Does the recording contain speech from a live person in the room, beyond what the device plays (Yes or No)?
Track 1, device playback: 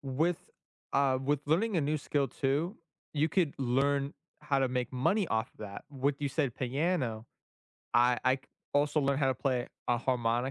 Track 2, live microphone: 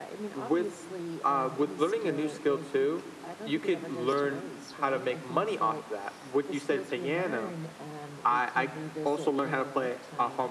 Yes